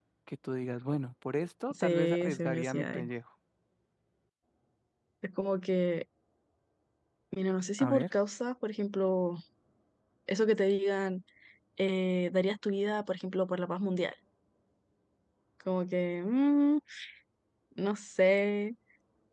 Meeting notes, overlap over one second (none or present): present